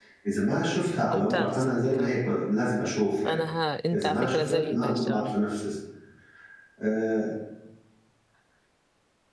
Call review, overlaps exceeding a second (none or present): present